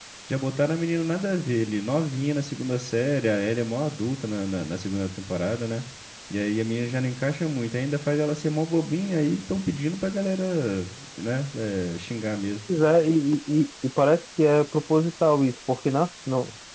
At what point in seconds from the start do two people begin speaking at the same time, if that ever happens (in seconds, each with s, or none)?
none